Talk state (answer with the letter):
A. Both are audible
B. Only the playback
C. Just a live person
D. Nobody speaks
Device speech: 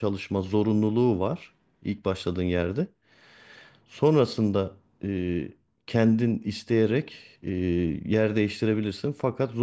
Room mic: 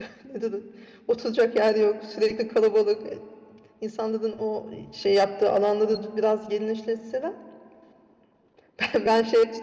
C